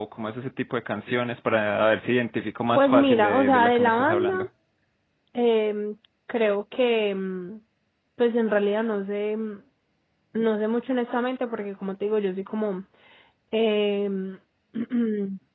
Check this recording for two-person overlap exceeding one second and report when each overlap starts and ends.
2.8-4.4

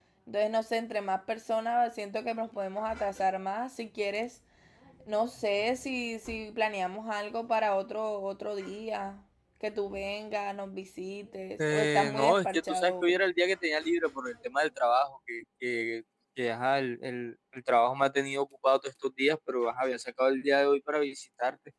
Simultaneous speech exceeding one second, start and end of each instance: 11.7-13.2

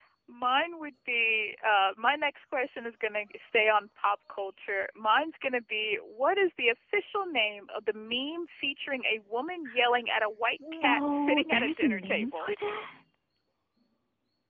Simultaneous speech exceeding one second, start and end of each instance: 10.7-12.5

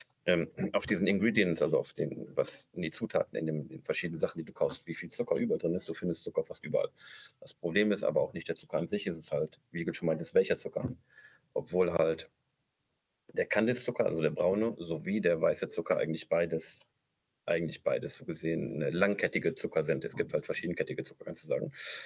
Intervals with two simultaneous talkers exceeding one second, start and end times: none

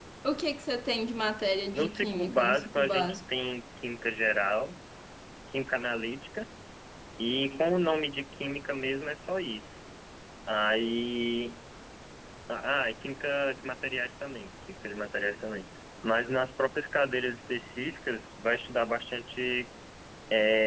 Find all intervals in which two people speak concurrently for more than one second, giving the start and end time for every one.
1.7-3.2

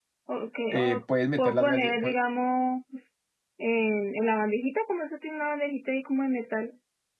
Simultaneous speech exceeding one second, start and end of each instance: 0.7-2.1

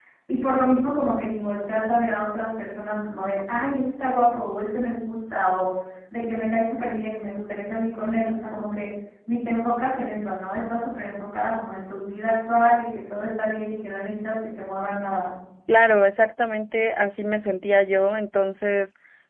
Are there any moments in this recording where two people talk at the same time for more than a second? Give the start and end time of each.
none

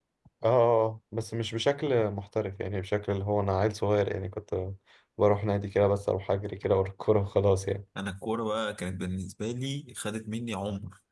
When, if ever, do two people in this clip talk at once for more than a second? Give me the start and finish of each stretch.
none

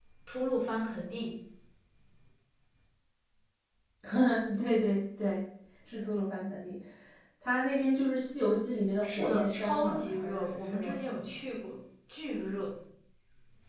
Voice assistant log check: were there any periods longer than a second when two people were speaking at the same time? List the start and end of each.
9.0-11.0

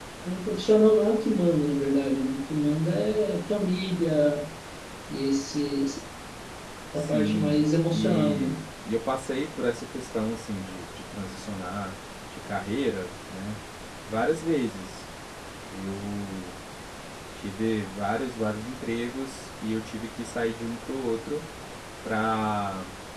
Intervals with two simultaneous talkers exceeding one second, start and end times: 7.0-8.6

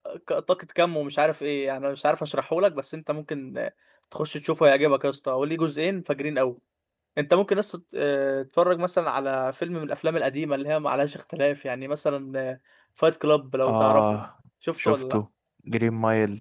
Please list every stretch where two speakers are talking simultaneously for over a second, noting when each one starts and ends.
none

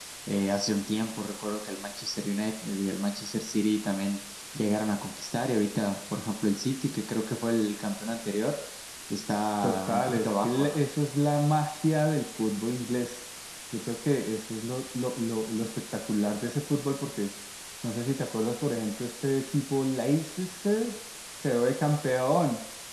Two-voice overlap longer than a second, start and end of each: 9.6-10.8

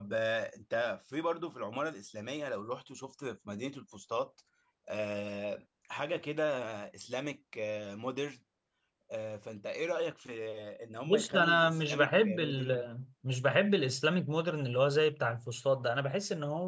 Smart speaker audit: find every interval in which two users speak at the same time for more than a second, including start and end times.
11.1-12.8

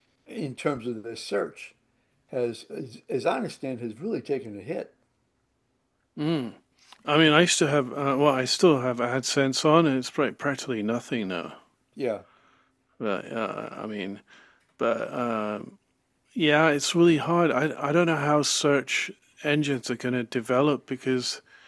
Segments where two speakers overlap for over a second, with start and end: none

